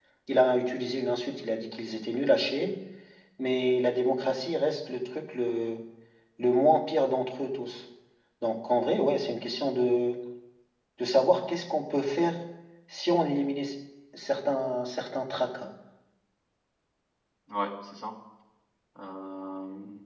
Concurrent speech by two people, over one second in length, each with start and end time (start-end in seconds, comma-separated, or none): none